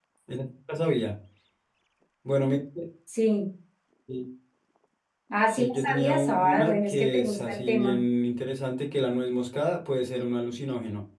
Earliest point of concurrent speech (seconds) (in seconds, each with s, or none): 5.5 s